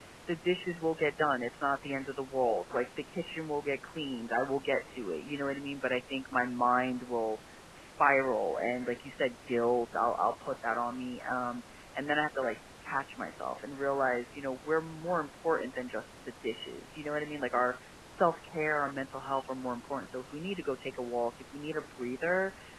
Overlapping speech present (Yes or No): No